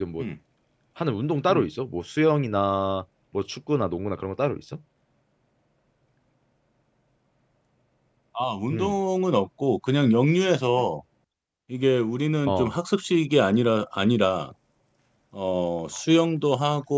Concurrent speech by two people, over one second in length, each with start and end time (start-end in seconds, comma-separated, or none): none